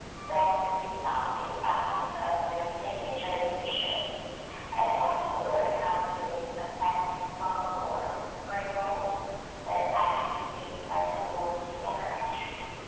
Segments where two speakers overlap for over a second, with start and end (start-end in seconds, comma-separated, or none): none